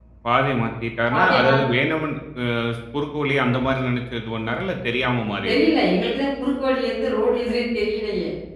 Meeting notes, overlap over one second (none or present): none